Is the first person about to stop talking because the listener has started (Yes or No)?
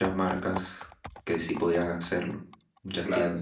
Yes